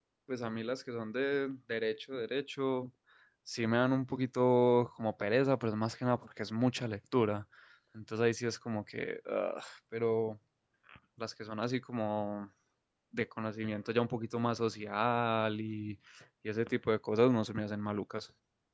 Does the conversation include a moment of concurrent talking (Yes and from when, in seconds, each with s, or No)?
No